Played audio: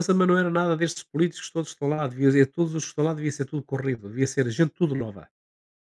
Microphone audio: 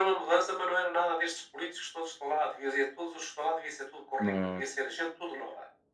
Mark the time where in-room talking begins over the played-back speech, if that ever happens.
4.2 s

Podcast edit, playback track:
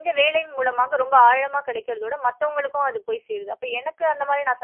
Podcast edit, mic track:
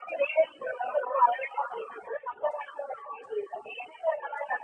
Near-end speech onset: none

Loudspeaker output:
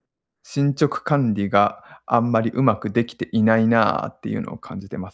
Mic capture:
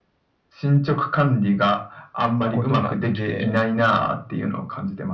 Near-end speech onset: 2.5 s

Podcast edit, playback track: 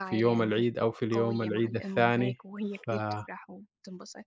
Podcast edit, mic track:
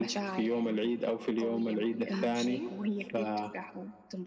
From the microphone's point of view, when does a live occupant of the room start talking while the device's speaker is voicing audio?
2.1 s

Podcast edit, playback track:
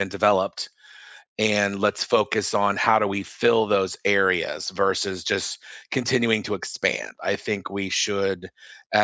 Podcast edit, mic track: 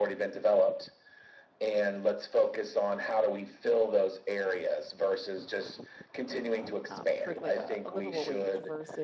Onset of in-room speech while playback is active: 6.9 s

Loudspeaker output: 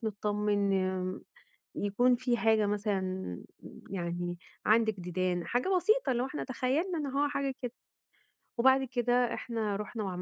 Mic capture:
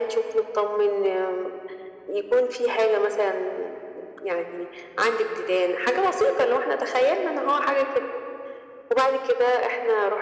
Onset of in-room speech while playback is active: none

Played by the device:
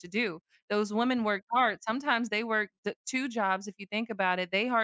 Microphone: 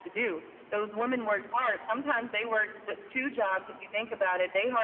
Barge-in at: none

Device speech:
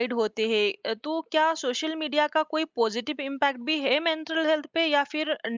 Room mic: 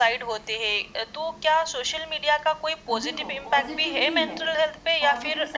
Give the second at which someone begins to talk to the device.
2.9 s

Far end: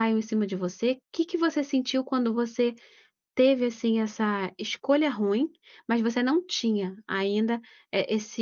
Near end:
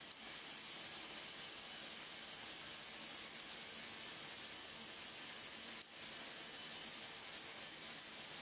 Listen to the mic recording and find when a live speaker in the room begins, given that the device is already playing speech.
none

